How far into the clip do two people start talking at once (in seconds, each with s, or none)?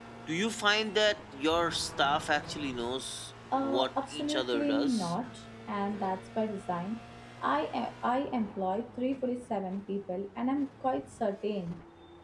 3.5 s